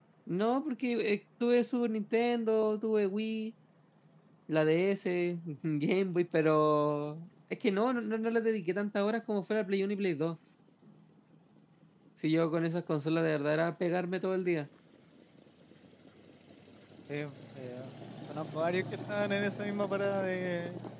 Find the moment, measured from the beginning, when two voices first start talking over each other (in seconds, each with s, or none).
none